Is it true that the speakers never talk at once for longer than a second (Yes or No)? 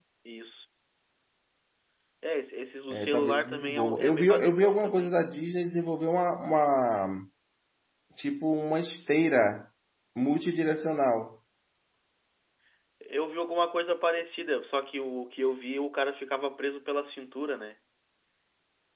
No